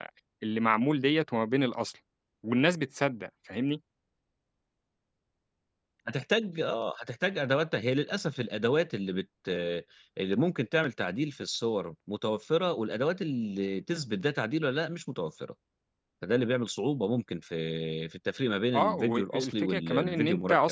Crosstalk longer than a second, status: present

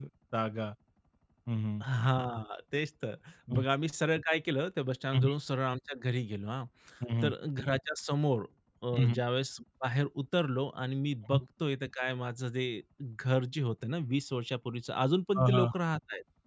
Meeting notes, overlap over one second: none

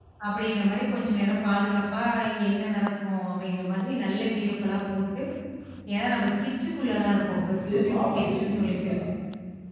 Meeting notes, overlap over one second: present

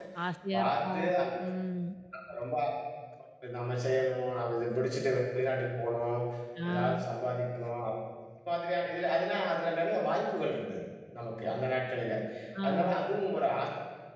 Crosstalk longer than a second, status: none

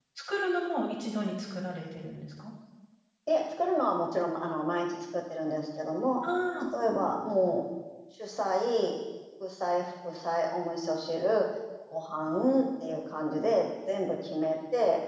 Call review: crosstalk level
none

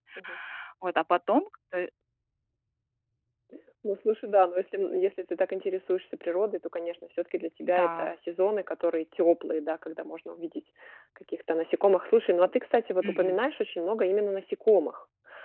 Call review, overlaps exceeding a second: none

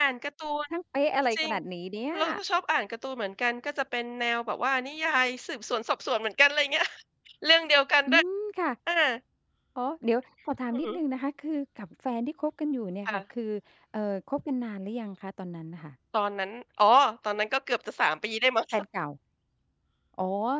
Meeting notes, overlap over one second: none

